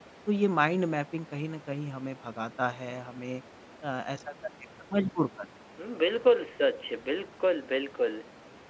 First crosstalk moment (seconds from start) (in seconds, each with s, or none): none